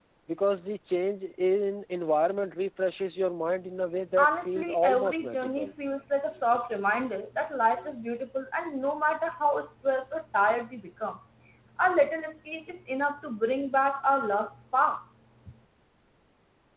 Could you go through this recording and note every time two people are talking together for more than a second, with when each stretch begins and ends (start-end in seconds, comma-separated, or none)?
4.2-5.7